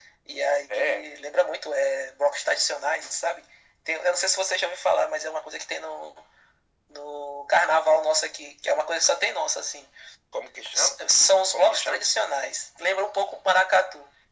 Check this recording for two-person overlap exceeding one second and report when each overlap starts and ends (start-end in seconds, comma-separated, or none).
none